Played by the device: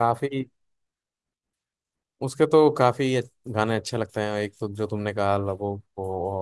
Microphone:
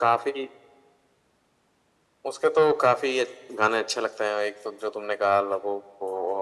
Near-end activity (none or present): none